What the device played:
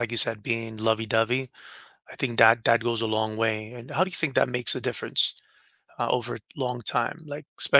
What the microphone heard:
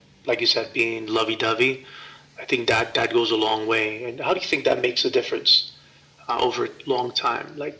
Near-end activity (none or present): none